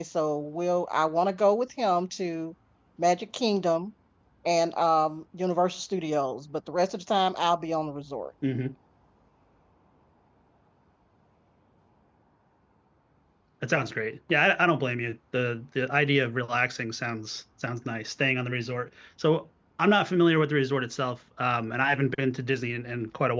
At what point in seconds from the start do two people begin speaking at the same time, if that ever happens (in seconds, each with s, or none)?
none